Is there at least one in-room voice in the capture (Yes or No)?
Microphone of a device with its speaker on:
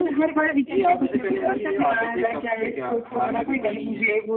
Yes